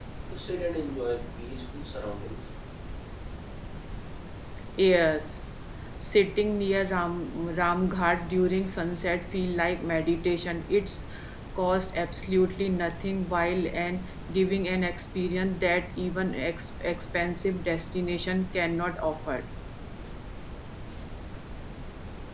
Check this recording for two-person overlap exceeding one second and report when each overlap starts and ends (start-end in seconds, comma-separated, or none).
none